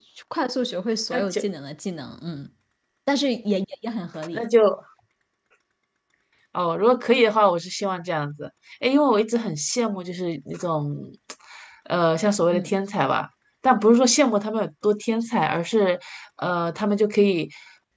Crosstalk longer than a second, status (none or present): none